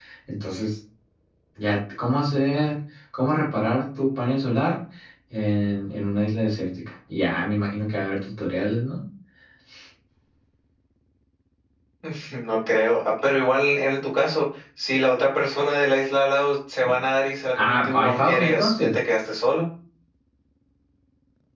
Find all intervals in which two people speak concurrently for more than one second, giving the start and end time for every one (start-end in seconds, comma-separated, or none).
17.5-18.9